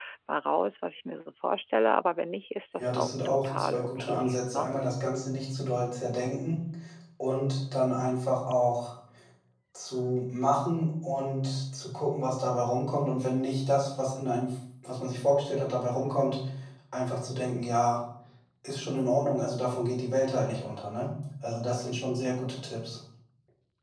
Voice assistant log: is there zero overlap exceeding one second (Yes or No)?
No